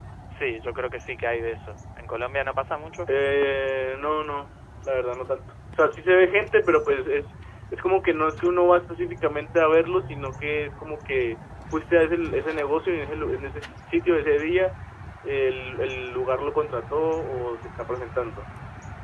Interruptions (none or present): none